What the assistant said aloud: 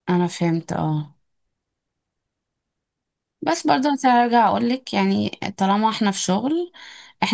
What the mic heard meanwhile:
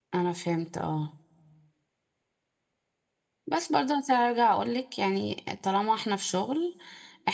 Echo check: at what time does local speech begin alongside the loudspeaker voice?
none

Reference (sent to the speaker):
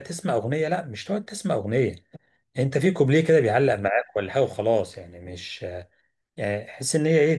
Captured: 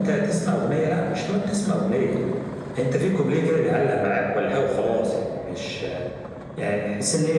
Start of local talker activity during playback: none

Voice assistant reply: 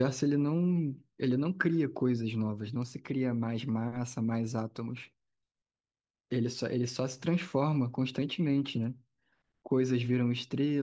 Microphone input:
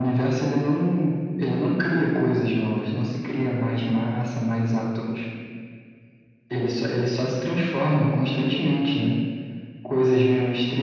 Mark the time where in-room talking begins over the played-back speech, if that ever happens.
none

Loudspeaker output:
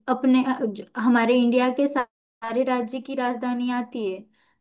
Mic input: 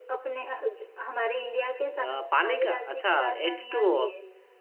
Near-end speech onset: 1.9 s

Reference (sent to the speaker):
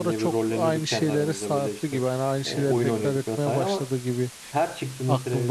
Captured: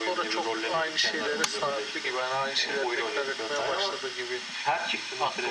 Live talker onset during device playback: none

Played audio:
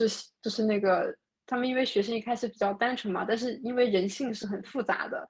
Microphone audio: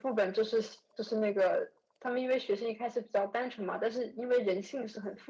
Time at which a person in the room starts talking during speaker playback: none

